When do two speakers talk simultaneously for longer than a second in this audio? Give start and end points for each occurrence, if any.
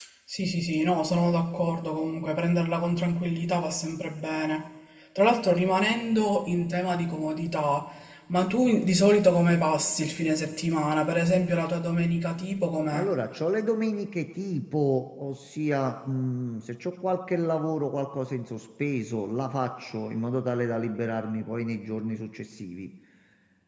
none

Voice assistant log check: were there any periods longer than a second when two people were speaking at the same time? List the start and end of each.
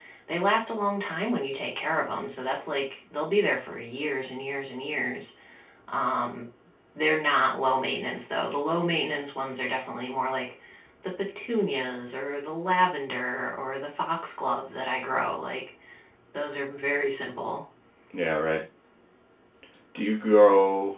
none

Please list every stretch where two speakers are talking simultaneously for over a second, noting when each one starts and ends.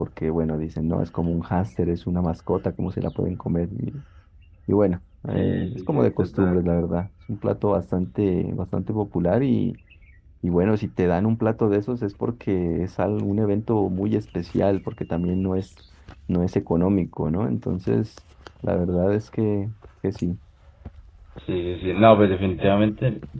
5.3-6.6

